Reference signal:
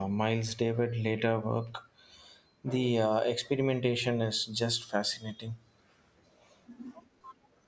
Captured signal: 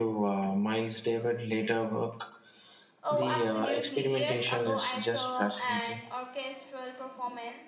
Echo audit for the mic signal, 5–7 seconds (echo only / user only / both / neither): both